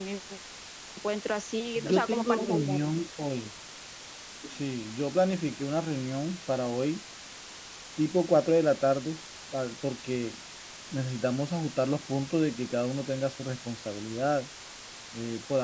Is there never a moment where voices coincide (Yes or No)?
No